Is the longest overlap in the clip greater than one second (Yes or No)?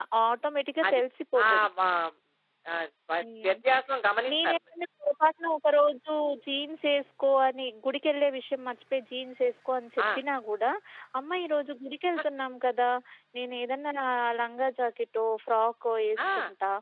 No